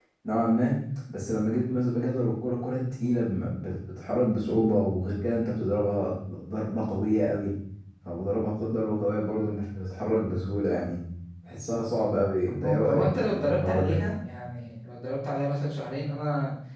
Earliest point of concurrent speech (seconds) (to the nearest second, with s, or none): 13 s